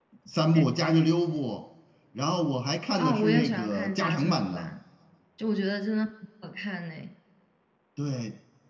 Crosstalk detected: Yes, from 3.0 s

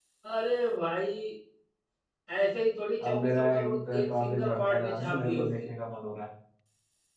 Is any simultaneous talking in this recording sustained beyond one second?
Yes, from 3.0 s

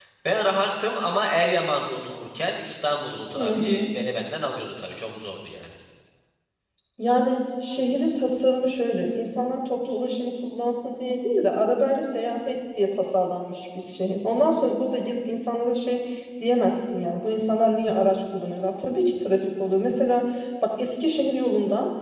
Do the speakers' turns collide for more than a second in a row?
No

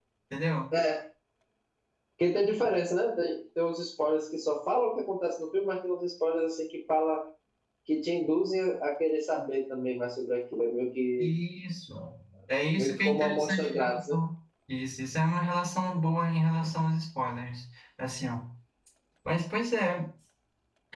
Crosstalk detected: Yes, from 12.8 s

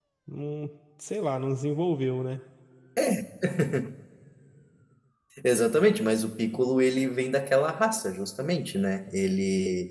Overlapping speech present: No

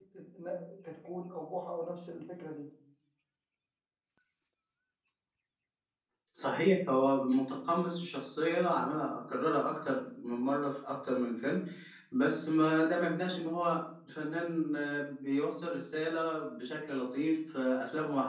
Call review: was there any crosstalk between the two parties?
No

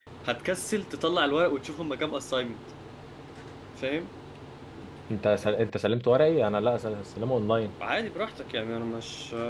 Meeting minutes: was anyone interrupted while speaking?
No

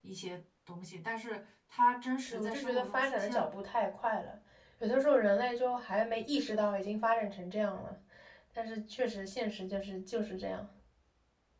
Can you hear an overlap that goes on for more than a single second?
Yes, from 2.3 s

